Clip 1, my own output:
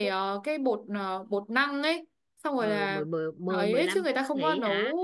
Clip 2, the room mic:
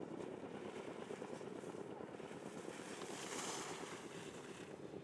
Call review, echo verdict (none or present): none